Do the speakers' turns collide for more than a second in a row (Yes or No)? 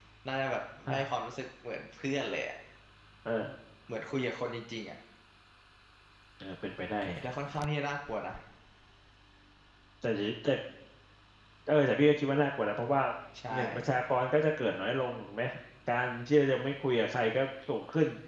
No